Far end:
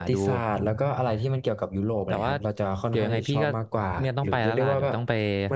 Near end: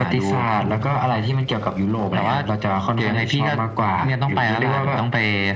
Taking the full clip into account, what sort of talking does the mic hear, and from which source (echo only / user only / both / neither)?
echo only